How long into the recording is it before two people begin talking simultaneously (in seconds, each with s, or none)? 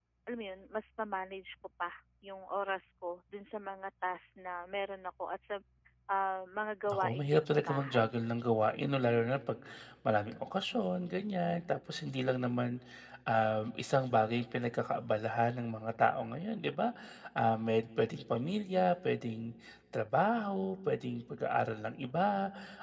6.9 s